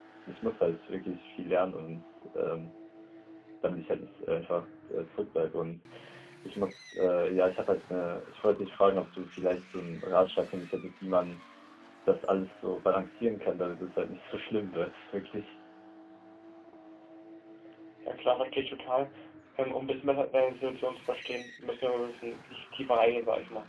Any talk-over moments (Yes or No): No